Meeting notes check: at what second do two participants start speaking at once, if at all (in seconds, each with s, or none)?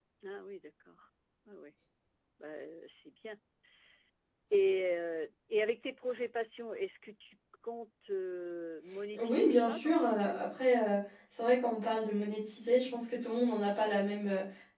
9.1 s